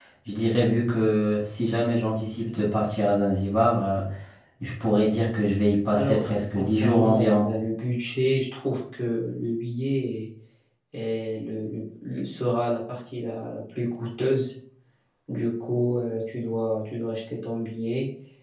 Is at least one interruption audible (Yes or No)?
Yes